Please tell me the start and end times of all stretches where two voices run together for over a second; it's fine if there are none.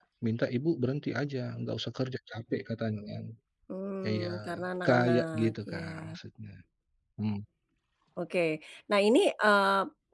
4.9-6.2

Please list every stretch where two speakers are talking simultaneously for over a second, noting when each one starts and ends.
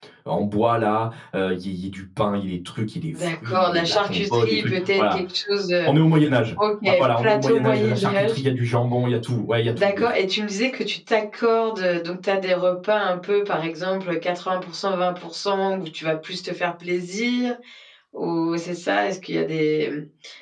3.1-5.2, 7.2-8.4

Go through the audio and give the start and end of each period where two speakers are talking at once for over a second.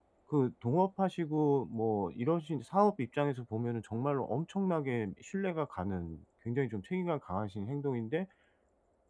none

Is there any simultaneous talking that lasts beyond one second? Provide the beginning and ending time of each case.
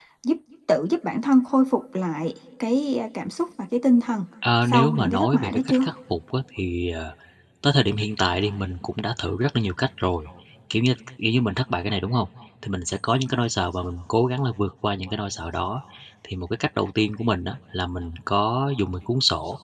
4.7-5.9

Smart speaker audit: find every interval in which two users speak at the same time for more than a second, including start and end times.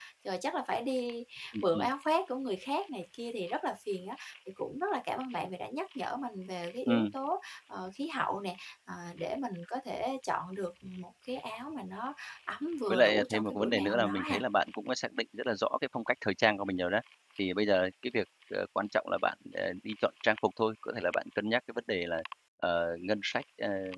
12.9-14.4

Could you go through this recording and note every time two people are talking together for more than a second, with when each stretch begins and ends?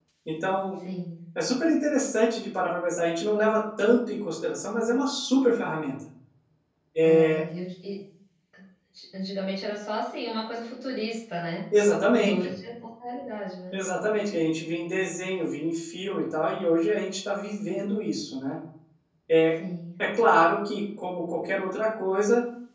none

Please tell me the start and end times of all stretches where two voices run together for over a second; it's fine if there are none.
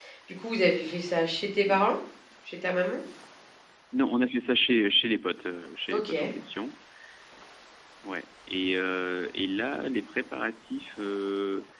none

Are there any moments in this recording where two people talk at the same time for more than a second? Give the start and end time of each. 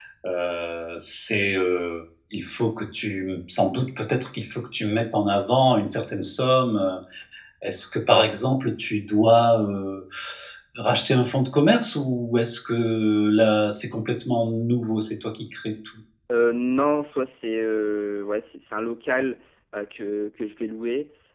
none

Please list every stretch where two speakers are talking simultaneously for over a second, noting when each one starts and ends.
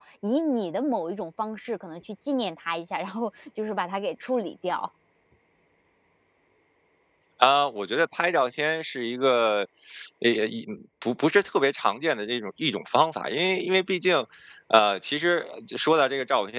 none

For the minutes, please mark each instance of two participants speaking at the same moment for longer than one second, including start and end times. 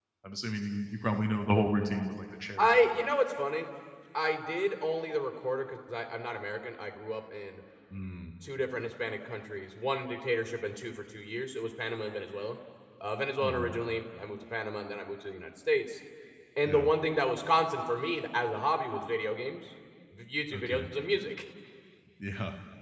none

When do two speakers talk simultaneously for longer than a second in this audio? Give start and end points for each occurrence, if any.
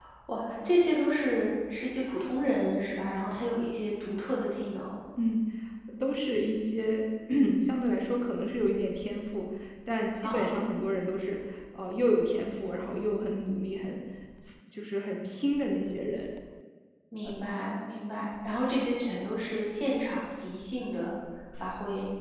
none

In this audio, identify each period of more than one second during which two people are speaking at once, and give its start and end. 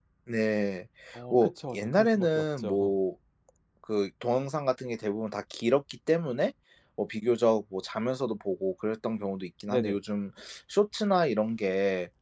1.3-3.0

